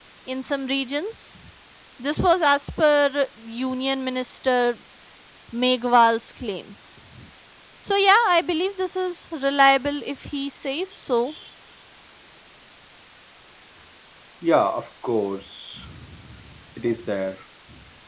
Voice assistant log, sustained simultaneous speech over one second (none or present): none